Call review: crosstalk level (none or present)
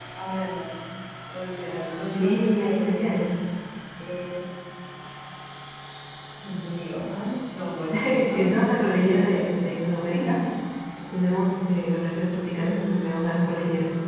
present